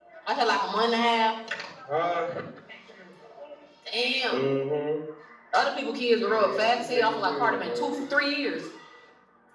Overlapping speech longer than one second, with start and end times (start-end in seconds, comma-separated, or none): 6.3-8.0